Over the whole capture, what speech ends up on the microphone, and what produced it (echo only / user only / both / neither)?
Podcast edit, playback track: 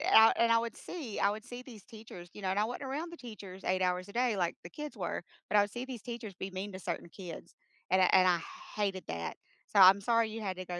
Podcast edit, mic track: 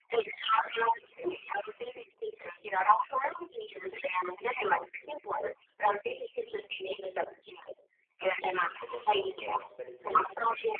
both